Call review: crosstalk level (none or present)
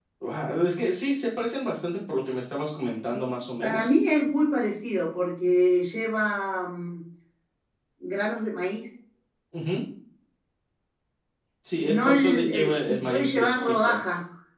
present